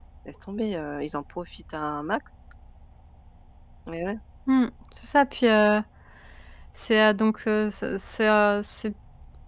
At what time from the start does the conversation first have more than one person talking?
none

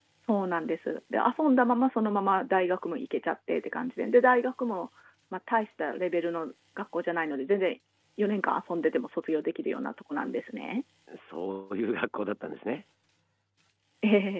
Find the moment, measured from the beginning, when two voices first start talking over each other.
none

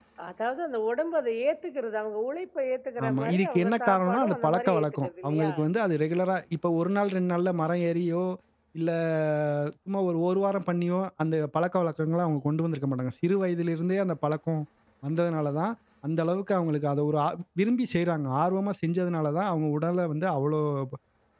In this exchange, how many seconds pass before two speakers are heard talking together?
3 s

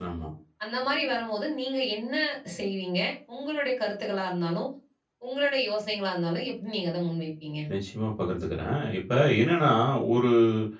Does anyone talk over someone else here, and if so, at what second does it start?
none

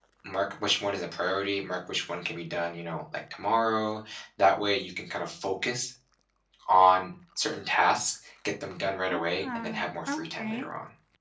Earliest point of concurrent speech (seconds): 9 s

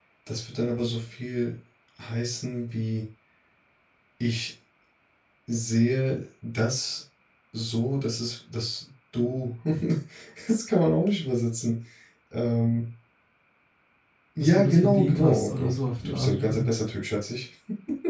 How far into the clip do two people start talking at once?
14 s

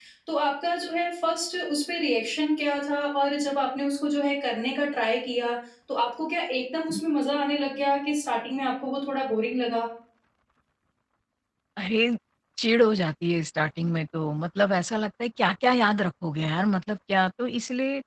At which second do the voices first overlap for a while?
none

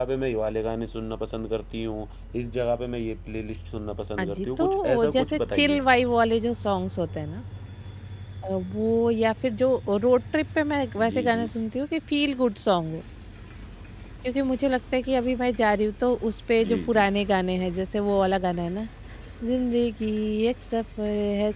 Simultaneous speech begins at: 4 s

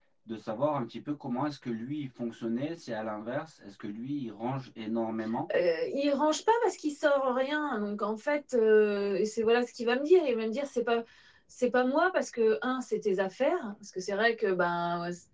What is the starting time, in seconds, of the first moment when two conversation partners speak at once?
none

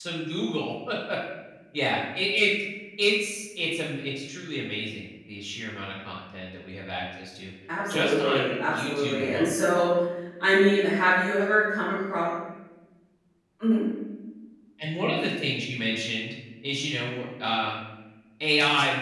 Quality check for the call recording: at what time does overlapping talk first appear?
8 s

